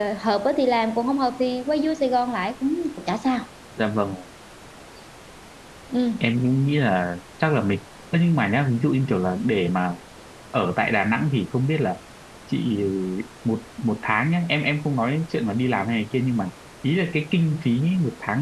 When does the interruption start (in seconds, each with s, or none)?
none